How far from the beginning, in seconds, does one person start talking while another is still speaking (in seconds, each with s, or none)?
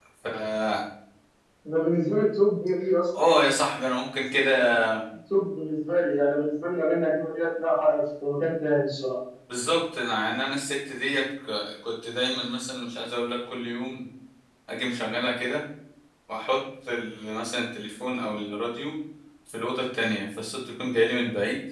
none